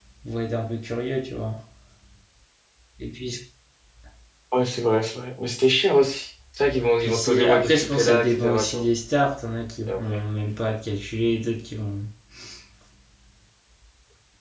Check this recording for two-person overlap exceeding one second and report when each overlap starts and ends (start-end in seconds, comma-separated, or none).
7.0-8.8